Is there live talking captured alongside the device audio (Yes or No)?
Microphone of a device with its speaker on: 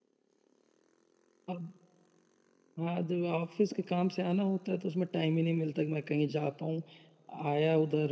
Yes